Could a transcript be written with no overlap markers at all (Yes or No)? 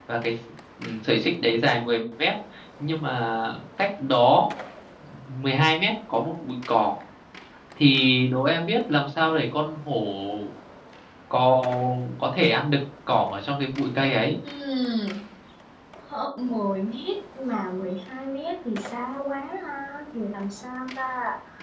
Yes